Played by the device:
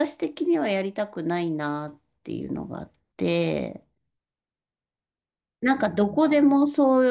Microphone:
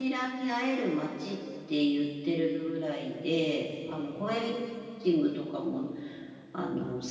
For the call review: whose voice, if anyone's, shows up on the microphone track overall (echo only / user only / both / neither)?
user only